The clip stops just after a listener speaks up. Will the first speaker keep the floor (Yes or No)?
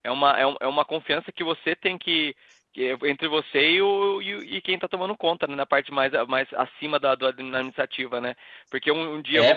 Yes